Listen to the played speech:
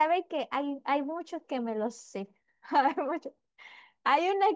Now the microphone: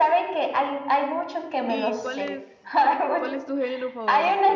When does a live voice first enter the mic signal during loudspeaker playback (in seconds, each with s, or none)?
1.6 s